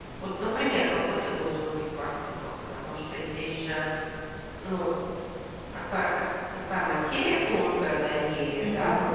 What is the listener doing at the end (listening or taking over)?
listening